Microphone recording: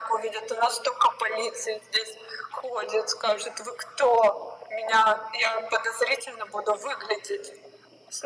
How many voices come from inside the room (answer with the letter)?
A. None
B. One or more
A